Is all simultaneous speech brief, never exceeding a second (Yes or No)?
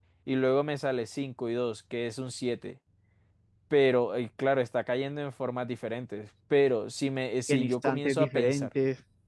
No